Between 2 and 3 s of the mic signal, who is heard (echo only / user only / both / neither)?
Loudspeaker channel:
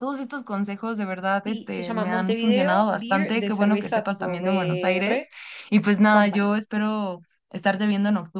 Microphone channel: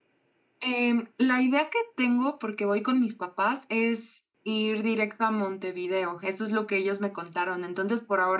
user only